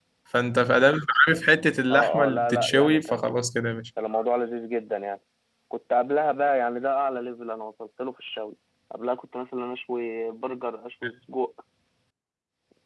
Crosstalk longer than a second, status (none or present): present